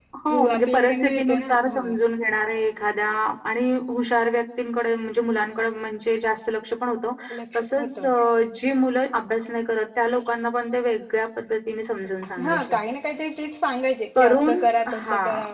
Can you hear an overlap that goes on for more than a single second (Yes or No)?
Yes